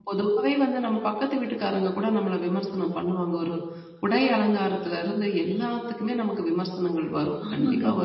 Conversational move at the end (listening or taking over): listening